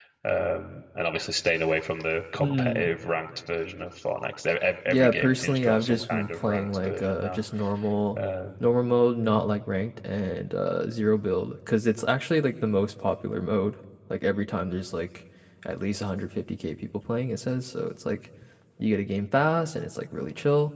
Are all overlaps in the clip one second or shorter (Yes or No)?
No